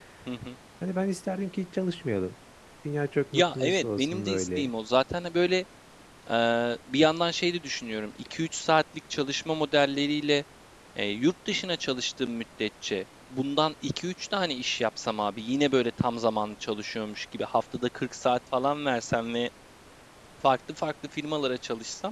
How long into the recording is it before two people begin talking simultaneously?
3.3 s

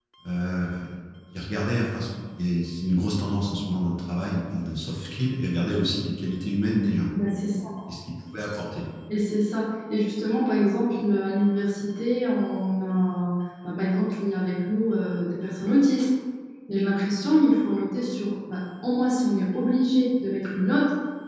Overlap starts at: none

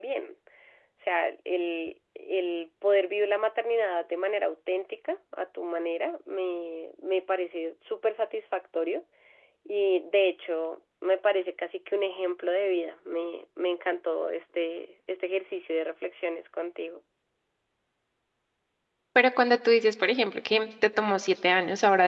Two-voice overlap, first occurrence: none

